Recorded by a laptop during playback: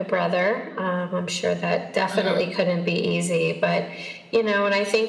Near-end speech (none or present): present